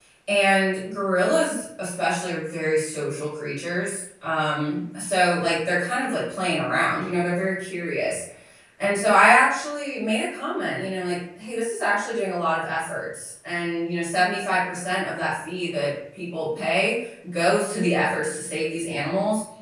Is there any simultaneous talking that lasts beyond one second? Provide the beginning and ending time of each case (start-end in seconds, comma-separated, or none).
none